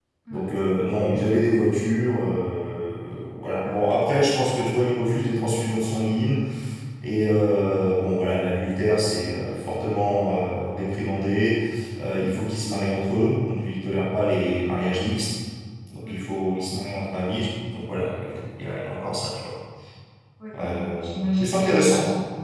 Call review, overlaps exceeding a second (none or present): present